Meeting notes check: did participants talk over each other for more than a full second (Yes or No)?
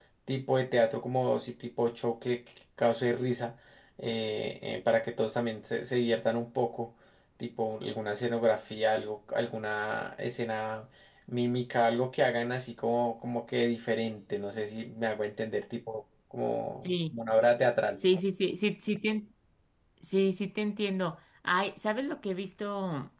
No